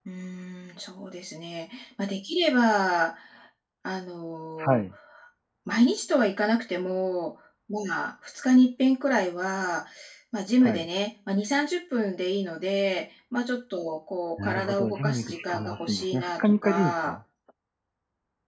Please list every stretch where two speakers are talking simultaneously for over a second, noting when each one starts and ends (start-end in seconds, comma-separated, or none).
14.4-17.2